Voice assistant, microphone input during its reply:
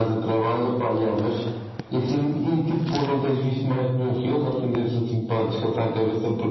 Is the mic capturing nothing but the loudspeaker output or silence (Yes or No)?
Yes